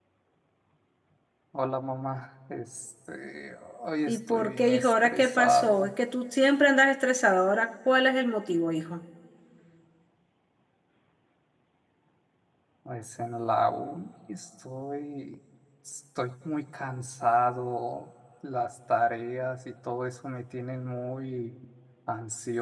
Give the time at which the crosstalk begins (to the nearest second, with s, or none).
4 s